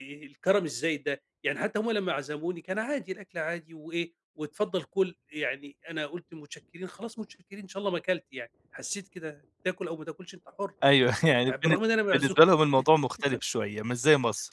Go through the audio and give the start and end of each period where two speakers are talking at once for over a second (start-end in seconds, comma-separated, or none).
none